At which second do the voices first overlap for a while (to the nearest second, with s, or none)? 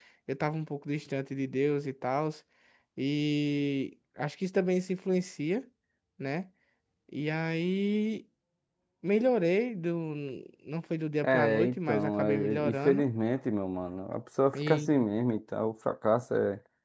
11 s